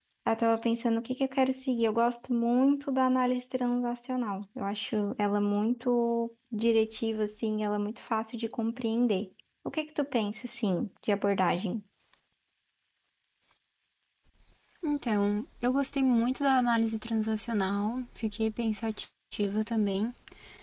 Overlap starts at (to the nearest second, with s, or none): none